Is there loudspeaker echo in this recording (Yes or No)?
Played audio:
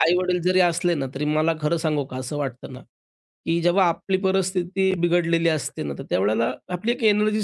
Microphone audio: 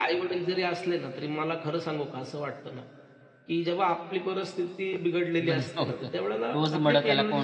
Yes